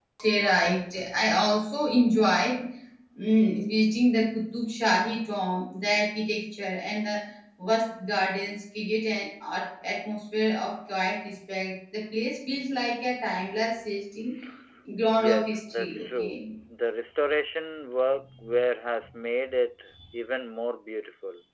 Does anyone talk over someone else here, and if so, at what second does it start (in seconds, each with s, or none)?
15.2 s